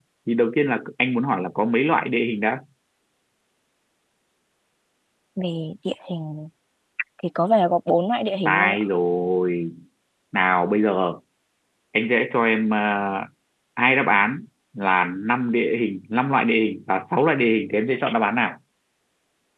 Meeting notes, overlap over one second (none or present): none